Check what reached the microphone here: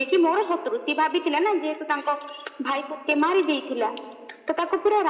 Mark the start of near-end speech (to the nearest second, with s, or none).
none